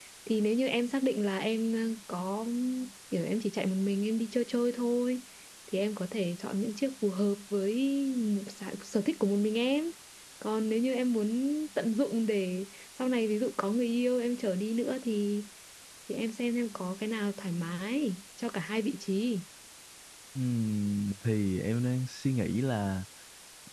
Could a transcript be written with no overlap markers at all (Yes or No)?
Yes